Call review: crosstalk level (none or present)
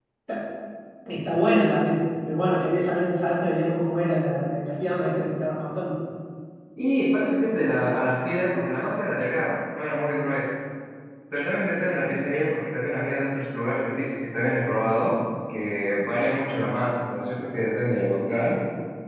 none